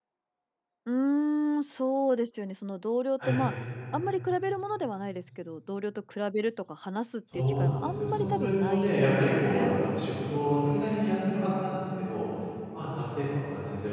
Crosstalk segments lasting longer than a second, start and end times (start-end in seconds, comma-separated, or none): 7.3-9.8